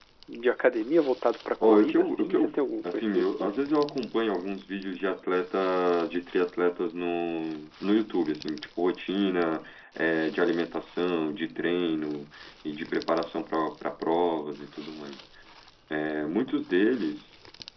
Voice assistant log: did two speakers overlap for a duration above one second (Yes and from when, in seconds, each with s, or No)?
Yes, from 1.6 s